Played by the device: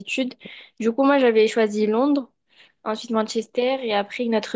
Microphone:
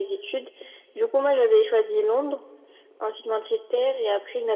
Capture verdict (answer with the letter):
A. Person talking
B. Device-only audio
B